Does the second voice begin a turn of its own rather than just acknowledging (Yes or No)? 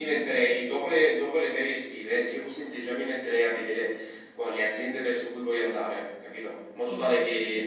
No